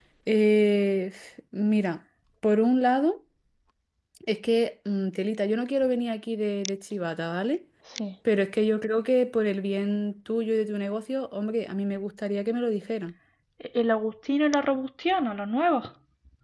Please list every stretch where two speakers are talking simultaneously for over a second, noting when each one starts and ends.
none

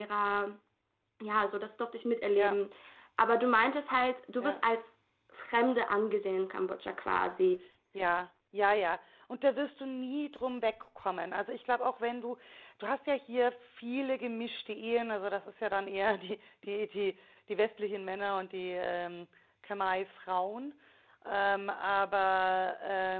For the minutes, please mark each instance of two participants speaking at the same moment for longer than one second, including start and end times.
none

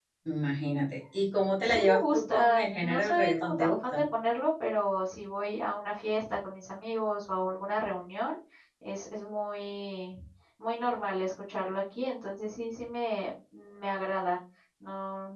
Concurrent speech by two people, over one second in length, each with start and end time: 1.6-4.0

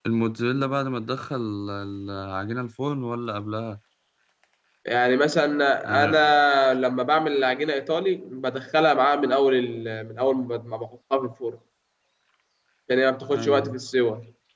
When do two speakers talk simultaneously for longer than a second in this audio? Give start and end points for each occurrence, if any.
none

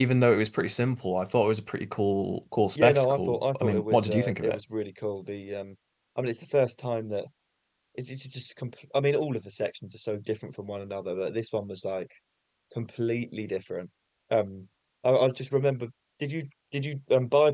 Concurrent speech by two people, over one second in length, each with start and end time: 2.8-4.6

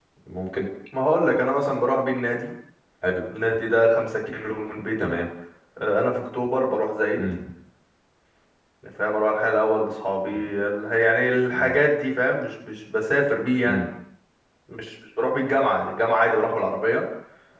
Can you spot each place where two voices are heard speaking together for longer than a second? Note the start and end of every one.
none

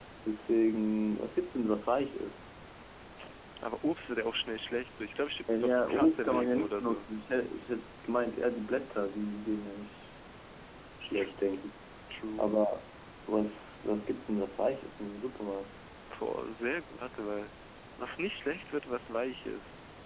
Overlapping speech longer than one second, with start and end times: 5.5-7.1

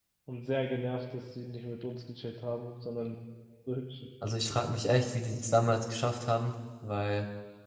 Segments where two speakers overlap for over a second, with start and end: none

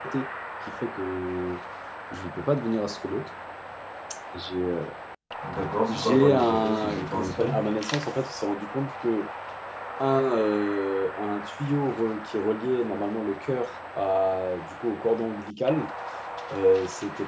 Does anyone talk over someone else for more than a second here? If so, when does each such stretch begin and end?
5.9-7.6

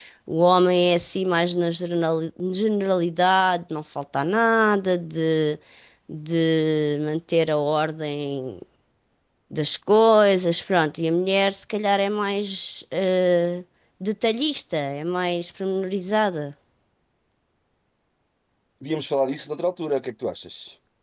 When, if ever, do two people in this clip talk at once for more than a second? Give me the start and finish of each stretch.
none

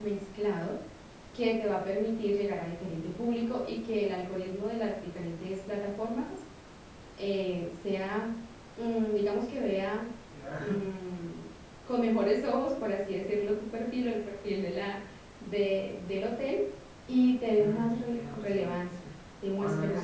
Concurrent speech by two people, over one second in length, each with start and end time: 17.6-18.8

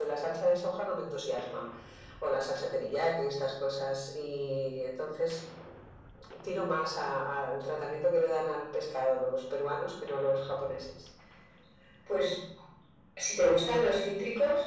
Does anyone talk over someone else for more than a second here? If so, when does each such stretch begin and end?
none

